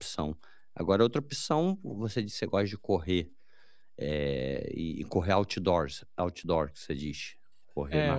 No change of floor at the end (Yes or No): No